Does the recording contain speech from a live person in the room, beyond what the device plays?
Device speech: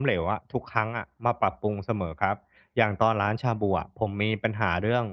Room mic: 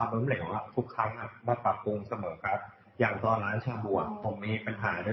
Yes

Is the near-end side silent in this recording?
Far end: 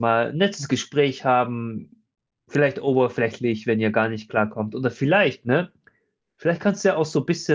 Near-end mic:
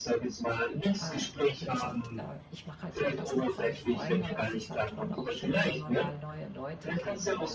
No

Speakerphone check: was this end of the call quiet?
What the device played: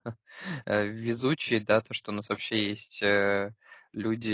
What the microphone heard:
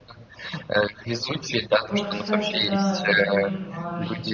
No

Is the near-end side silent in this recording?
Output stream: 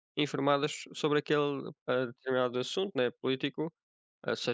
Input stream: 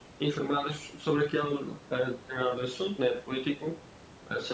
Yes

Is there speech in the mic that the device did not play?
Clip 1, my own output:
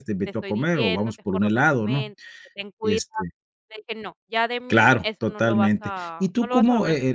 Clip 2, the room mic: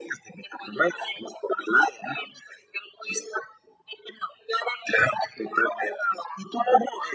No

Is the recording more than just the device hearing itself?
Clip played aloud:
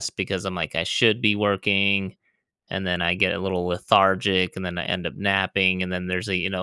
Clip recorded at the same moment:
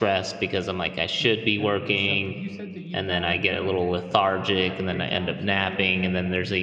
Yes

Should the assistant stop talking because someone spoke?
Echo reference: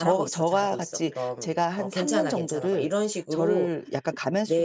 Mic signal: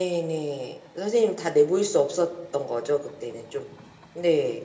Yes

